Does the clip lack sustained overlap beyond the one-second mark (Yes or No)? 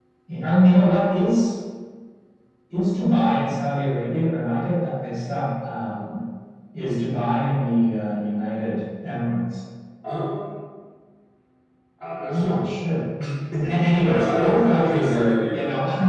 No